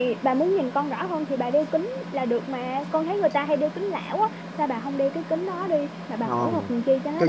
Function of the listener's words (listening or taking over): taking over